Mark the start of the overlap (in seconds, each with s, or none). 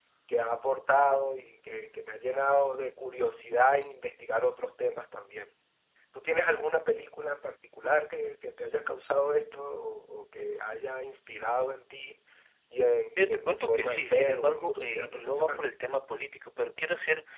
13.2 s